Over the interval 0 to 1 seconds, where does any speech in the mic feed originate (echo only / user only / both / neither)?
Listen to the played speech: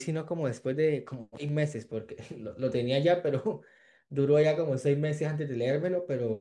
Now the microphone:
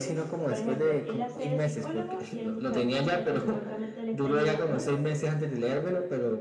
both